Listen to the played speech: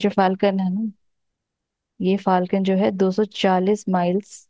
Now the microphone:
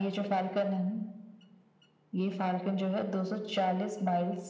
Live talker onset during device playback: none

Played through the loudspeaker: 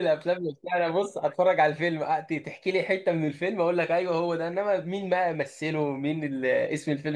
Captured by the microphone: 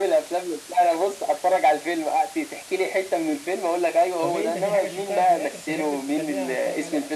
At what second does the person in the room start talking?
4.2 s

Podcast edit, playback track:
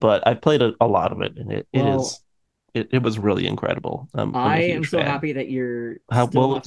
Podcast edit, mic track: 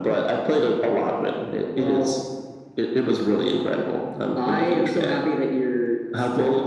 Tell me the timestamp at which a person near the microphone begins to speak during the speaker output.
none

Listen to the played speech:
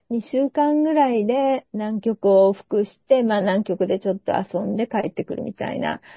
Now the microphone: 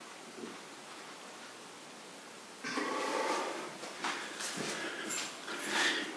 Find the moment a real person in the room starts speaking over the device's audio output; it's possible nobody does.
none

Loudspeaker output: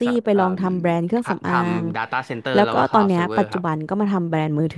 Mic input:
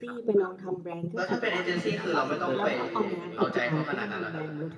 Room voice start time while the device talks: 1.1 s

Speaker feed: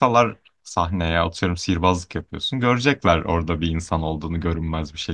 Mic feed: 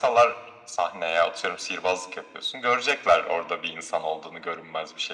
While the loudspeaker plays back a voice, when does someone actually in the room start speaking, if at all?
none

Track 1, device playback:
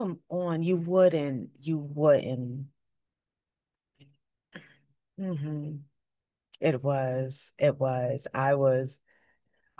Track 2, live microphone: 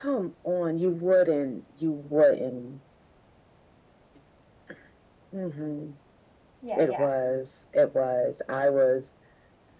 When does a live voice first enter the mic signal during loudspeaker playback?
6.6 s

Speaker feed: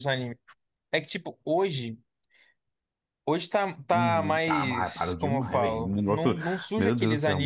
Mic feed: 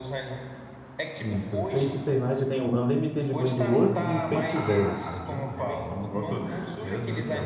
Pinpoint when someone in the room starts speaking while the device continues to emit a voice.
1.2 s

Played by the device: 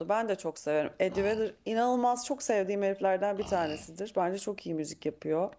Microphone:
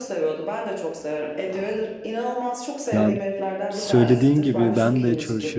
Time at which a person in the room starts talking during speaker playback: 2.9 s

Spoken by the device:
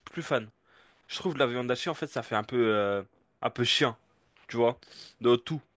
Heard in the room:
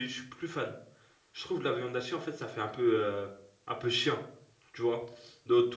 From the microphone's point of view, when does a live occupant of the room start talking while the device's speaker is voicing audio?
none

